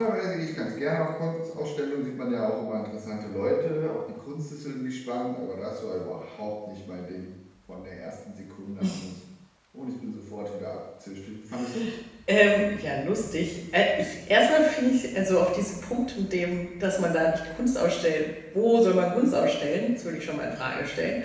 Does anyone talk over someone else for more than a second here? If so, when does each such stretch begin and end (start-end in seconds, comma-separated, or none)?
none